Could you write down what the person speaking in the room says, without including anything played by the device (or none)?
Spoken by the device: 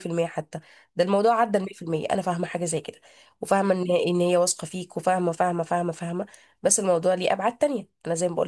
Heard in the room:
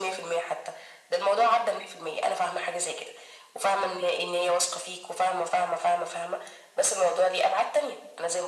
none